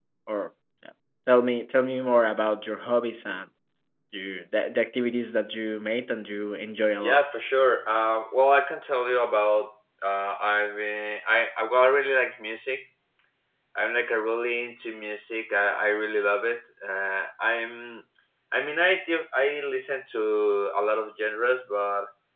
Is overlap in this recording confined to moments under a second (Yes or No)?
Yes